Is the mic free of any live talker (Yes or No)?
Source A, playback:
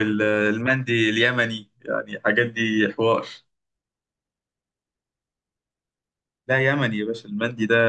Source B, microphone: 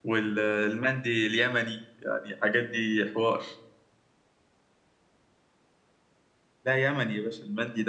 Yes